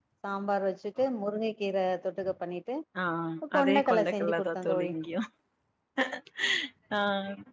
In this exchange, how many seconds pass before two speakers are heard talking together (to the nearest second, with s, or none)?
4 s